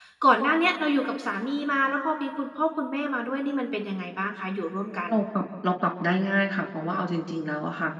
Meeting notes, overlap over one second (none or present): none